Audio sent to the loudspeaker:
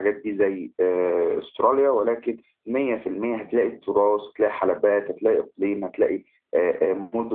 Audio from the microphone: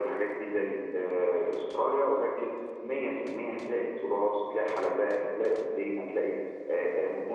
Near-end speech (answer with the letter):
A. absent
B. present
A